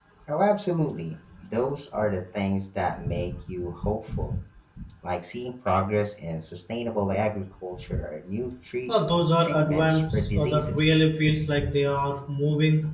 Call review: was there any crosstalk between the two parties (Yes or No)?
Yes